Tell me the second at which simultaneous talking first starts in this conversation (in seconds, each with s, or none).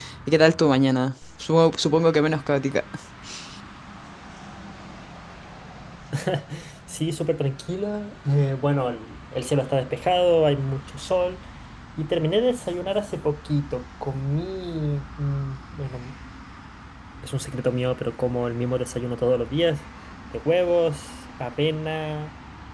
none